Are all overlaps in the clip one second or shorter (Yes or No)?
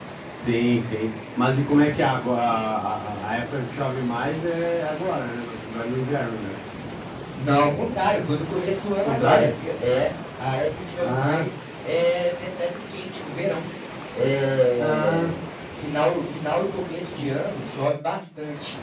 Yes